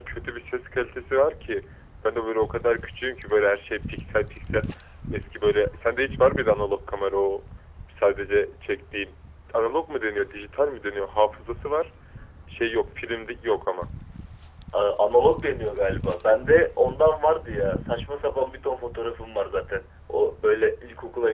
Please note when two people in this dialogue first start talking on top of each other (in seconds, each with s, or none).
none